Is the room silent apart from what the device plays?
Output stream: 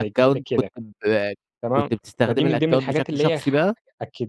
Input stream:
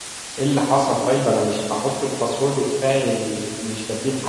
No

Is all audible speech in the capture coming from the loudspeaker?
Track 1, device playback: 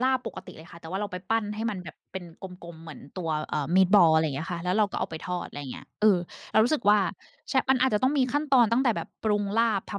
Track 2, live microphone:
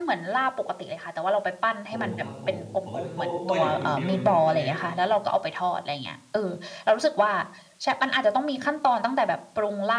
No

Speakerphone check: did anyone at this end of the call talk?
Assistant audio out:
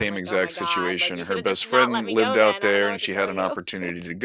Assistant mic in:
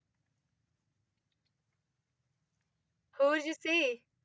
Yes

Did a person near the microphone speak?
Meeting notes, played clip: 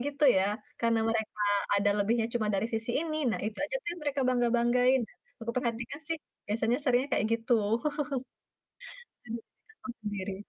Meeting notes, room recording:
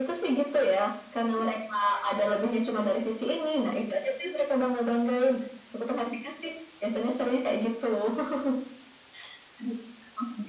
No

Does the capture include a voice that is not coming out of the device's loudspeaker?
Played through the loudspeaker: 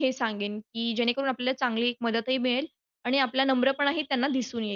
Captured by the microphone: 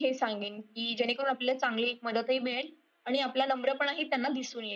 No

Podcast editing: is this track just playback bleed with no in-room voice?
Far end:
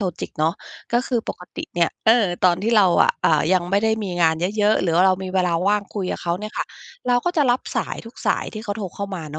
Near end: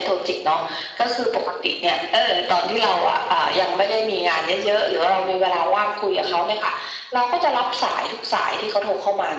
Yes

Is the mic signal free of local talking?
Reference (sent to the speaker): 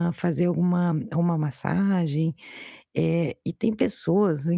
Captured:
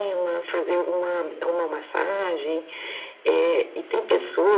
Yes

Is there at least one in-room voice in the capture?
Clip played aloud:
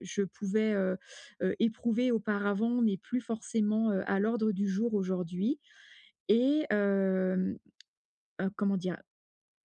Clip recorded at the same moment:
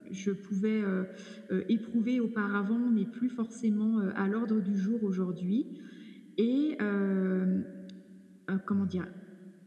Yes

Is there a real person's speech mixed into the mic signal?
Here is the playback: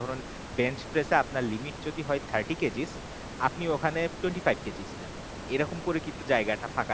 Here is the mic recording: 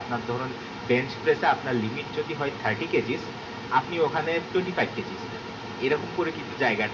No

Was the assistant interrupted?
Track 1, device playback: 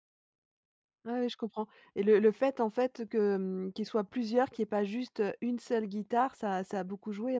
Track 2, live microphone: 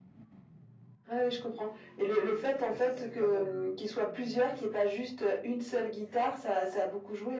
Yes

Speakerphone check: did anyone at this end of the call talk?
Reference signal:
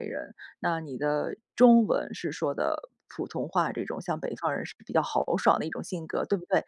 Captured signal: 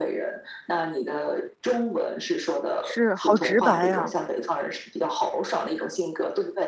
Yes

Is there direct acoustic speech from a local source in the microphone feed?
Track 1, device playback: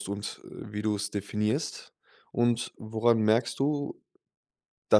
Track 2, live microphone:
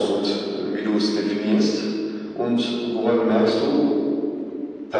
No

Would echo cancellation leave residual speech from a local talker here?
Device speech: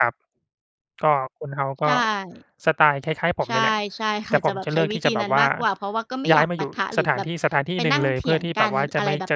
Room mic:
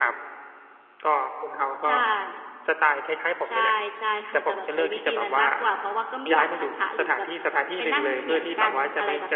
No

